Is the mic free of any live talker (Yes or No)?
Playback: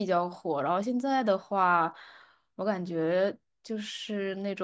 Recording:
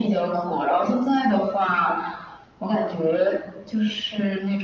Yes